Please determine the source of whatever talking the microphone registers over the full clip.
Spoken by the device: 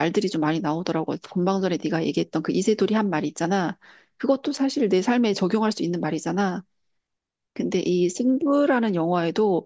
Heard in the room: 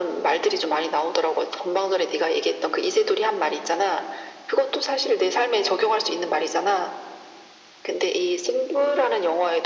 echo only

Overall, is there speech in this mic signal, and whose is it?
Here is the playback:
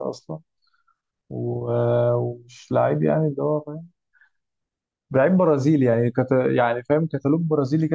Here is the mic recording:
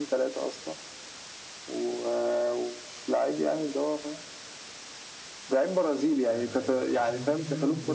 both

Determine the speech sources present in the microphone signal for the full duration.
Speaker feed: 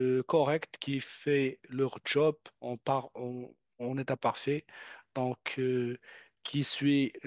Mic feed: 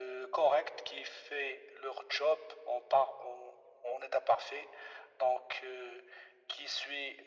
echo only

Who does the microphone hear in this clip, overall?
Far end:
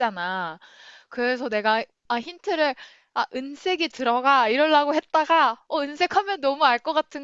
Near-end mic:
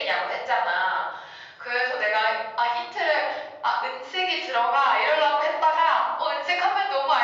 echo only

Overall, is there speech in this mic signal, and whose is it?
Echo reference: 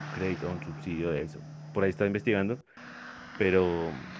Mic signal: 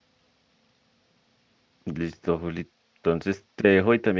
user only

